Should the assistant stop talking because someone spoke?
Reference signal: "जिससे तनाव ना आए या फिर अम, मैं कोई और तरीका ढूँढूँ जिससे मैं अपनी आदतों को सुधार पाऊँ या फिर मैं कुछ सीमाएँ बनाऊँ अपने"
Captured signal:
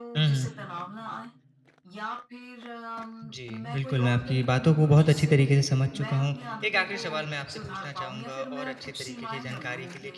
Yes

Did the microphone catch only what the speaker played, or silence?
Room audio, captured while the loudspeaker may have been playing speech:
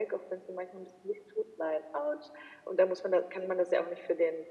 Yes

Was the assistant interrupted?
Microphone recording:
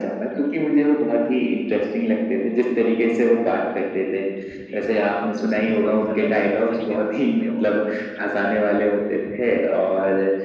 Yes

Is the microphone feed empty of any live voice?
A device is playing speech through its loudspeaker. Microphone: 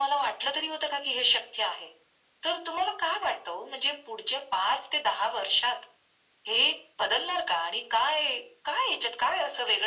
Yes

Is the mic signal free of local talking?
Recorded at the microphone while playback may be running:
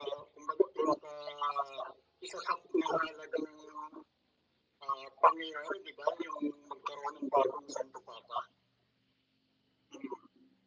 Yes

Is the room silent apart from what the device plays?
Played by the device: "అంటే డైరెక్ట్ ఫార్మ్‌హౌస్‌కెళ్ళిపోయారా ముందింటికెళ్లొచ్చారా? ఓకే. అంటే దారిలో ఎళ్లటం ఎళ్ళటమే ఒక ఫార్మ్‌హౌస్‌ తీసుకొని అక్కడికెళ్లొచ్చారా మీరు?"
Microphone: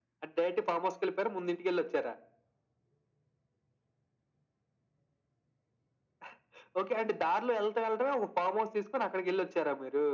Yes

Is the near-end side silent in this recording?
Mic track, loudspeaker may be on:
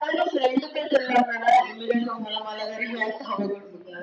Yes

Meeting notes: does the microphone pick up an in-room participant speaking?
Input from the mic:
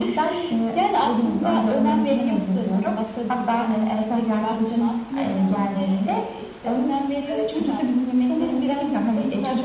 No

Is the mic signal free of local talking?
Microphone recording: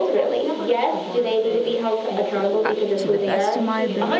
No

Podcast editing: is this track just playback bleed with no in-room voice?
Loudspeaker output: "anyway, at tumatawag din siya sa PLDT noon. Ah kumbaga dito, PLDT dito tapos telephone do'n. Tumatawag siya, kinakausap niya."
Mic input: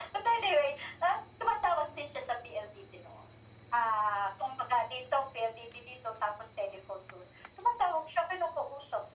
Yes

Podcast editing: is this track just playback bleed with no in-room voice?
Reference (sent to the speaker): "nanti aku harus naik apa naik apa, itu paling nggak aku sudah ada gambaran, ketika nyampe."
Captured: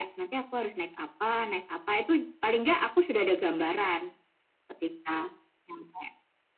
Yes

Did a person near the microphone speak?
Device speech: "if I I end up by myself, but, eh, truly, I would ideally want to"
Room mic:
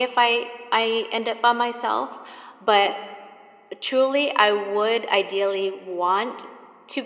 No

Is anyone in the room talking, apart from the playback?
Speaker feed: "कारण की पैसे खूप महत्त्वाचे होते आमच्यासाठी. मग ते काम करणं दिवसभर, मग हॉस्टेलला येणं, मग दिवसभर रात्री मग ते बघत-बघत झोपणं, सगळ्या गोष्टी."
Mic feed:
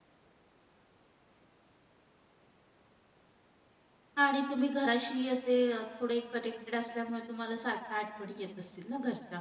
Yes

